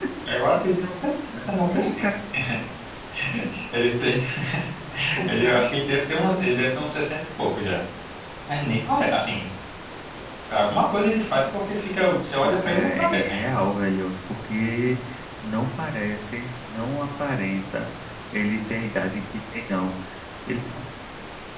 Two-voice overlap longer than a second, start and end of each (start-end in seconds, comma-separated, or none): 12.4-13.6